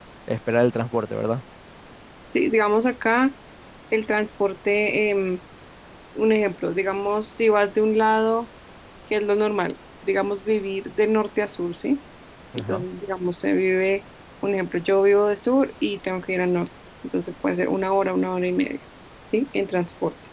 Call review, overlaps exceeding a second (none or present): none